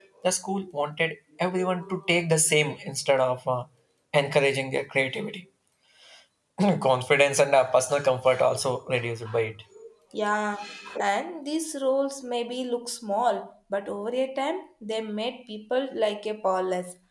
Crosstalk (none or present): none